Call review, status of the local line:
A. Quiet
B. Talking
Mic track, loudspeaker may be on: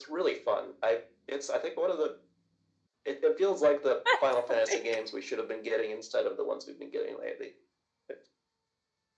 B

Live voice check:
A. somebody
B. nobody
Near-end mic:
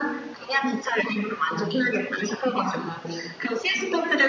B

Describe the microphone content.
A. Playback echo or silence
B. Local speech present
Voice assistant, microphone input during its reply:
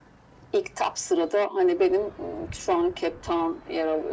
A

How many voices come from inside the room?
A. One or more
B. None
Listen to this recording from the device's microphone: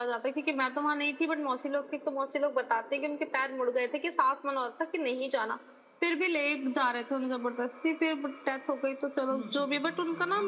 A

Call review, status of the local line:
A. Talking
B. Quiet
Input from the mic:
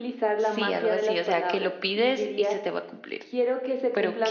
A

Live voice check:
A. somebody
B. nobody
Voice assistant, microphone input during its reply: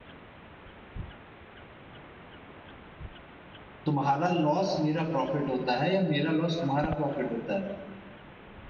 A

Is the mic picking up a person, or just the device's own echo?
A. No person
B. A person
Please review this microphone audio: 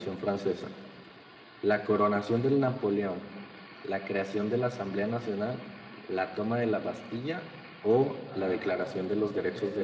B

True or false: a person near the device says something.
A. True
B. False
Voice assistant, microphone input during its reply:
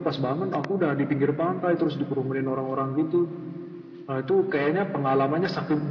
B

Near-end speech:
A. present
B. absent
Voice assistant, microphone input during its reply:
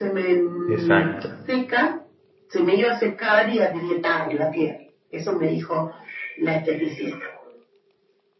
A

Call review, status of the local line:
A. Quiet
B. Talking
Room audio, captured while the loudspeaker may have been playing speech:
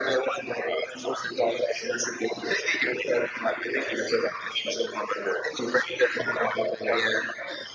A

